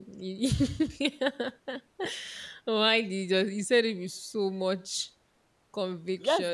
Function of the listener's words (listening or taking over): taking over